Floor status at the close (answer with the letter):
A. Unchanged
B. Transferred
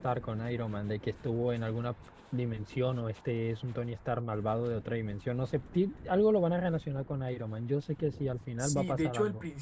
B